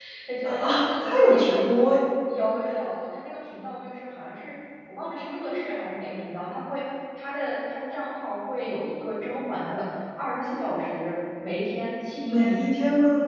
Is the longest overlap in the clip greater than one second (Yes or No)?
Yes